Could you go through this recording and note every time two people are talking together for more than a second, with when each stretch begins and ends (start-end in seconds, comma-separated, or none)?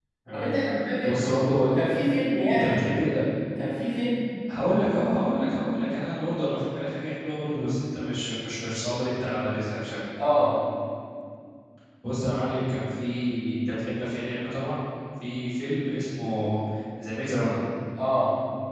none